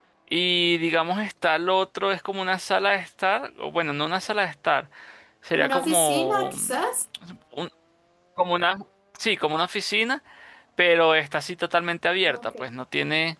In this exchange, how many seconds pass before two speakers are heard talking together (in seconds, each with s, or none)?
5.5 s